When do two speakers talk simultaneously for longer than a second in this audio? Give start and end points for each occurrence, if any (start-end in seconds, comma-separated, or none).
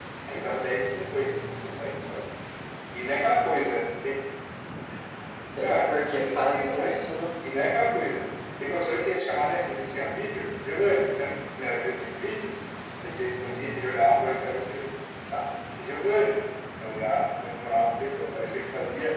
5.6-7.0